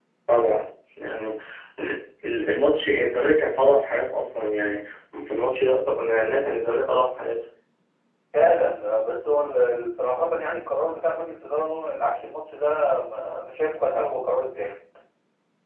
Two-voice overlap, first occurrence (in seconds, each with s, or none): none